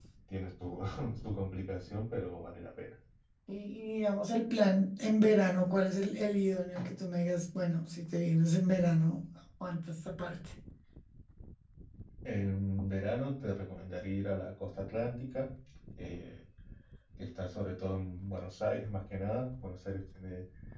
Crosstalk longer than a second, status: none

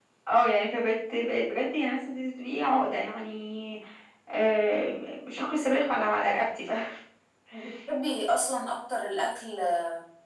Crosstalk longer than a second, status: none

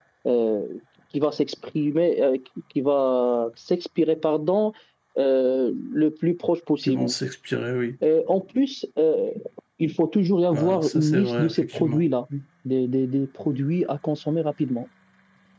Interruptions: present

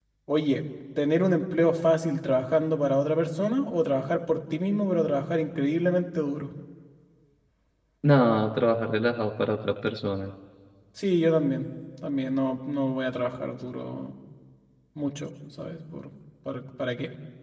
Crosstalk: none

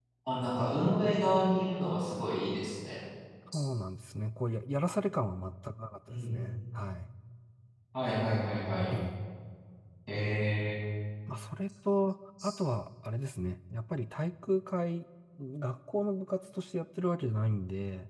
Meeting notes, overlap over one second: none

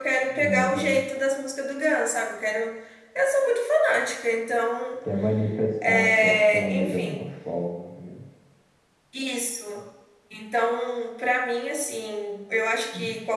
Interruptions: present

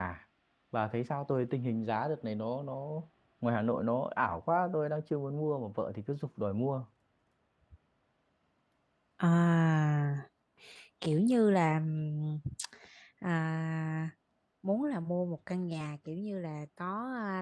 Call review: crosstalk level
none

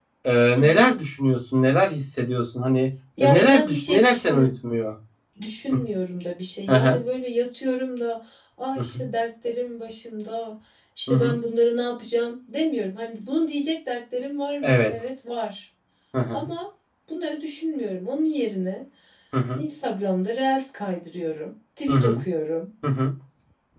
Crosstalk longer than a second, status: present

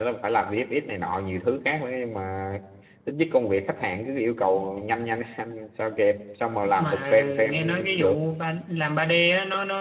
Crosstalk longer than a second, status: present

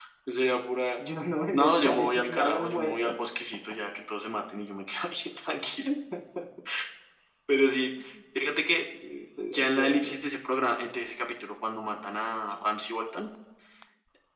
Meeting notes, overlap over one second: present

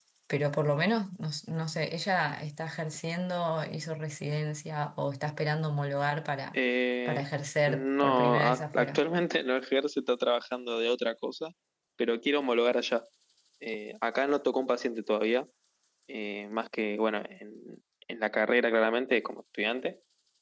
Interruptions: present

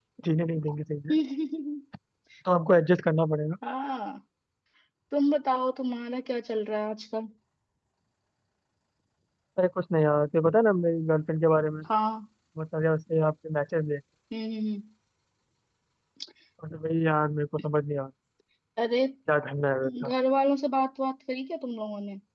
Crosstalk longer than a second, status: none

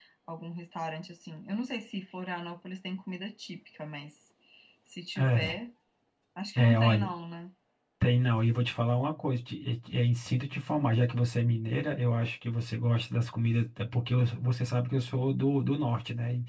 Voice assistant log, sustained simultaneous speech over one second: none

